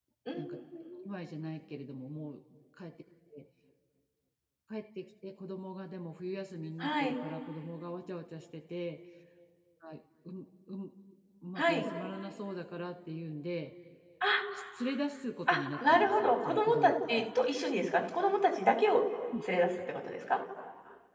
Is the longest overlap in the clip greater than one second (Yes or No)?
Yes